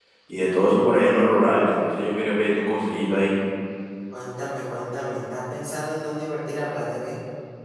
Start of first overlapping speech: none

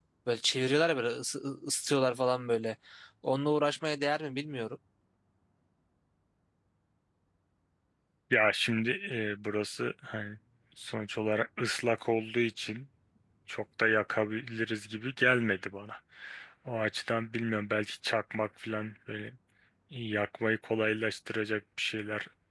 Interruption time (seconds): none

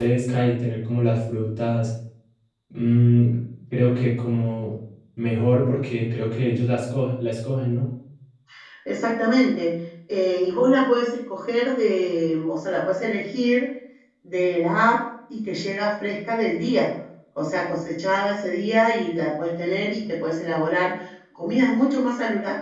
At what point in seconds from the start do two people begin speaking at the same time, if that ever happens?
none

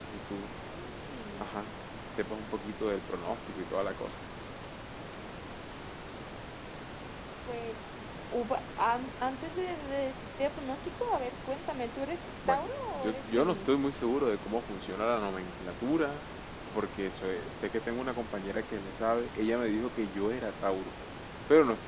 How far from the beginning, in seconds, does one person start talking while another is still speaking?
12.4 s

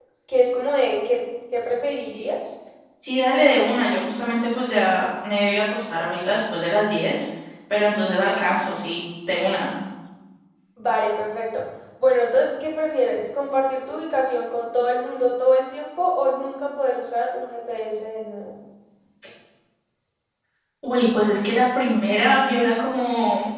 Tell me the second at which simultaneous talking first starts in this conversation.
none

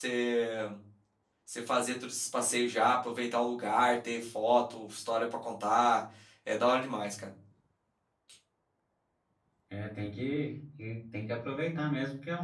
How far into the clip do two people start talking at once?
none

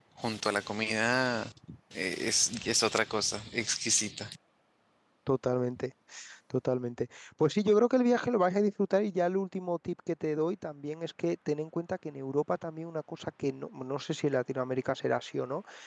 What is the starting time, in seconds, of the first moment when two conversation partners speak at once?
none

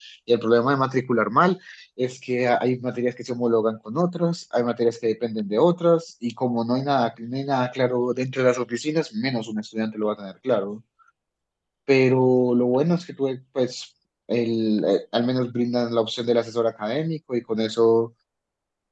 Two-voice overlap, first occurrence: none

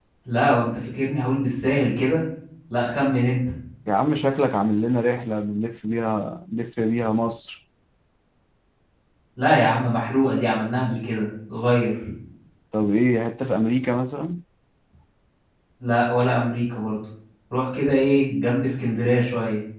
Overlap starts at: none

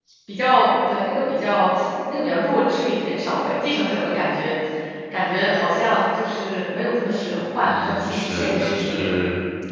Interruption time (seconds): 7.6 s

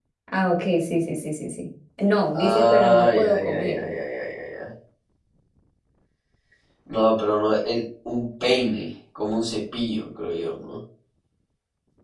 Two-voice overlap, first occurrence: 2.3 s

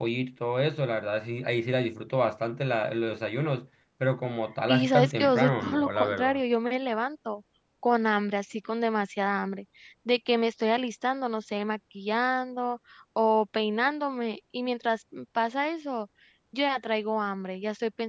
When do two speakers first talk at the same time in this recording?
4.7 s

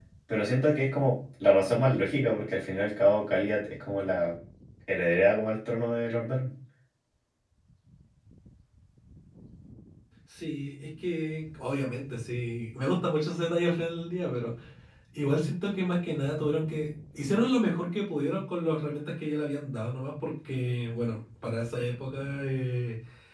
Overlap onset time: none

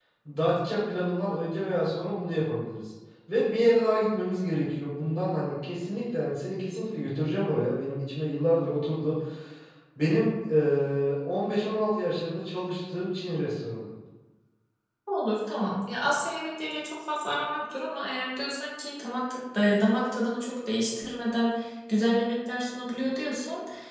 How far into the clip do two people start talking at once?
none

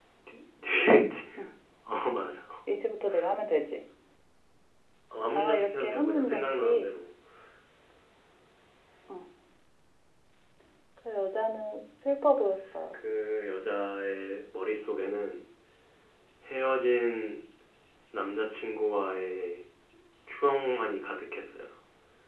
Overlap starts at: 5.3 s

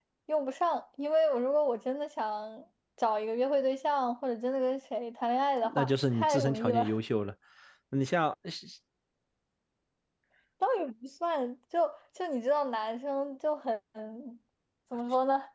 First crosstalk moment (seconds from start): 5.6 s

